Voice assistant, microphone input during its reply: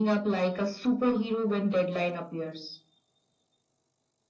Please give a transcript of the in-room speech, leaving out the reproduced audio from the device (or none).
none